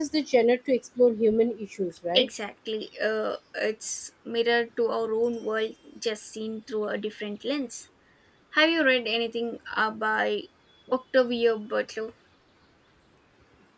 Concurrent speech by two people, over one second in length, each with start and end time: none

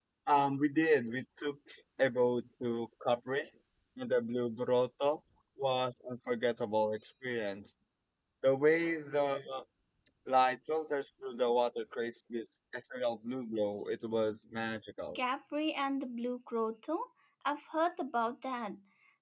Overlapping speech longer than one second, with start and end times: none

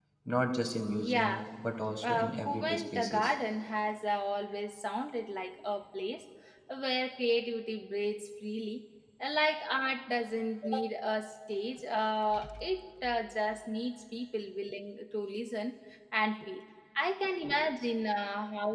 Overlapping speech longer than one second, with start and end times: 2.1-3.3

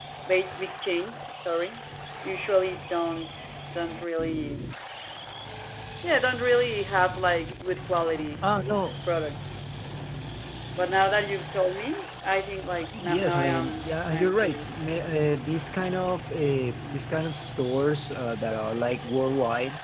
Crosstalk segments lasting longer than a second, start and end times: 13.0-14.8

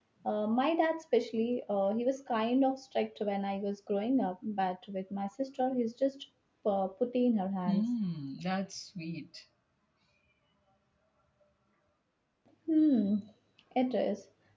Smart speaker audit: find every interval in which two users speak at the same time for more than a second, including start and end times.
none

